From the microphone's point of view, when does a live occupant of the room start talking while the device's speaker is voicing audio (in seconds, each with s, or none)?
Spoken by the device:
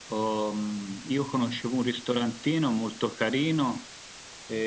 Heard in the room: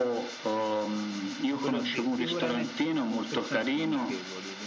1.6 s